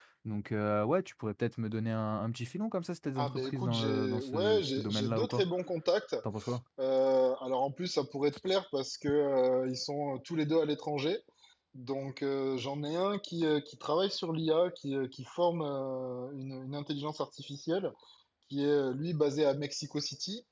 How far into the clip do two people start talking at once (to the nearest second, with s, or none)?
3 s